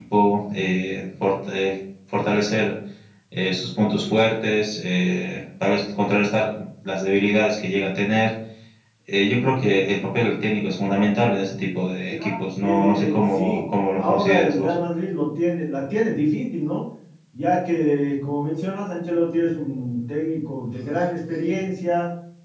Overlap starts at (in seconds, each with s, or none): 12.1 s